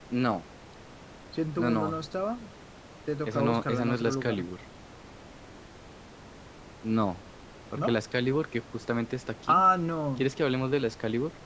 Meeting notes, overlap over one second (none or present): present